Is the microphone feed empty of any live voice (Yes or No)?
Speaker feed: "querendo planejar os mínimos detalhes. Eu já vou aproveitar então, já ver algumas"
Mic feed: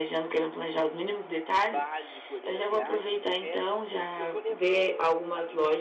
No